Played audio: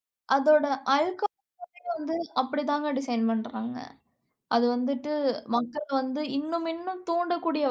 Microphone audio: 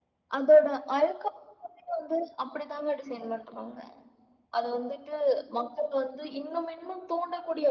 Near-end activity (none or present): none